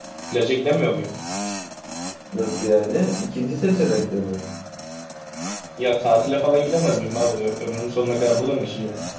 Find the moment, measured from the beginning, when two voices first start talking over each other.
none

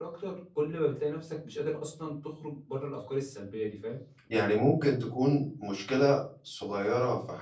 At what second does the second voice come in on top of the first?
none

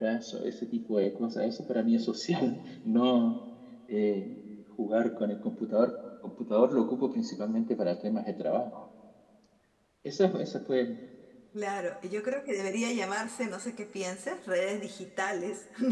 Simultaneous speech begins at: none

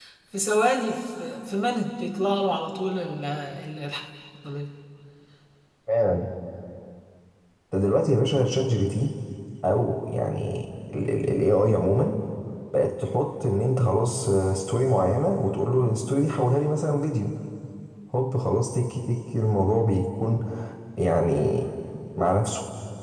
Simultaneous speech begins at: none

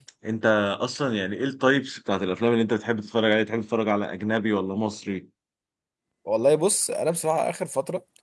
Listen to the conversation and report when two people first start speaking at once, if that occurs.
none

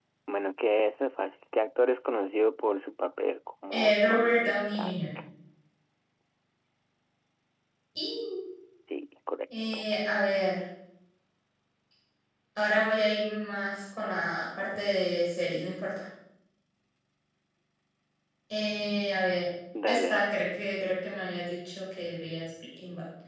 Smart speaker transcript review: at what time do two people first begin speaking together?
4 s

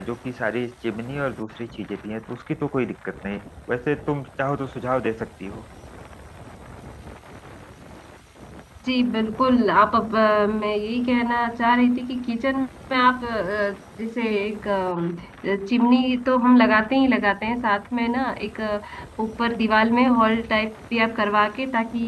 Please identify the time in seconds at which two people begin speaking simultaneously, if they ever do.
none

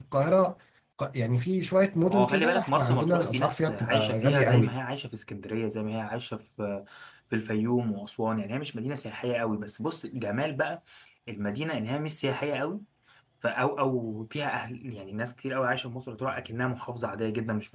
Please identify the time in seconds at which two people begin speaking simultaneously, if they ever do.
2 s

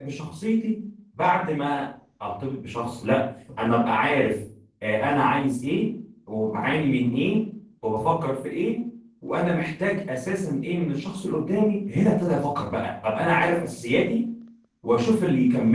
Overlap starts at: none

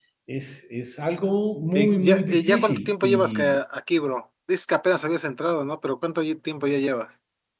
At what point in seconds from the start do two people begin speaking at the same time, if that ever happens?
2 s

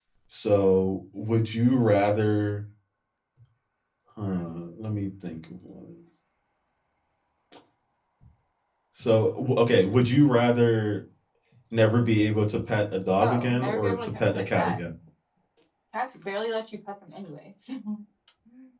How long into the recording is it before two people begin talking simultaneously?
13 s

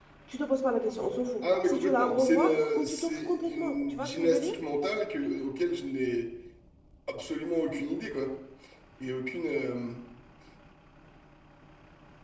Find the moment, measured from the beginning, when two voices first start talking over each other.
1 s

